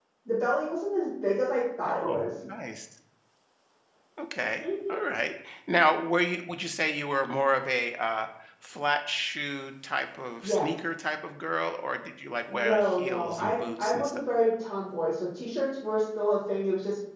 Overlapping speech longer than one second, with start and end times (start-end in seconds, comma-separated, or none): 12.5-14.2